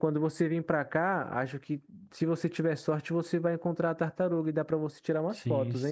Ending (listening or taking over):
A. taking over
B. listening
A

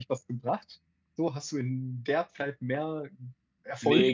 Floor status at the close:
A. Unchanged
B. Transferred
B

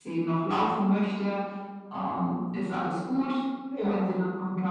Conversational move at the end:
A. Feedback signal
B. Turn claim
A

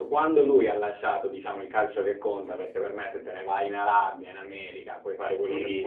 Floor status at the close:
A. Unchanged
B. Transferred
A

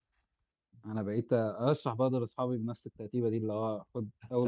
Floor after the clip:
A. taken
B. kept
A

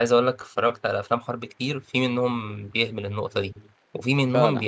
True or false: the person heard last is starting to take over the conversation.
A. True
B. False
B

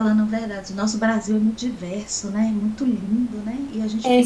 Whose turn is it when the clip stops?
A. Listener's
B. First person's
A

